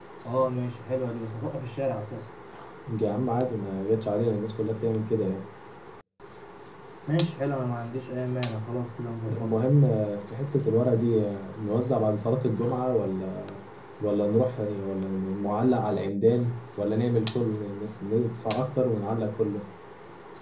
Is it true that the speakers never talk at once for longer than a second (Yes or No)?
Yes